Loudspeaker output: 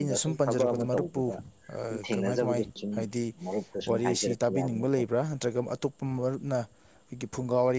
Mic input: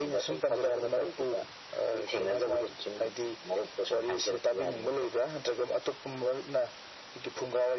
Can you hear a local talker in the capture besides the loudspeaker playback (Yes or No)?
No